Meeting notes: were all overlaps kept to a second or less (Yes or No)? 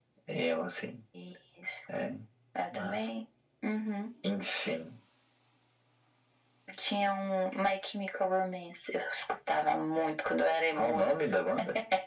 Yes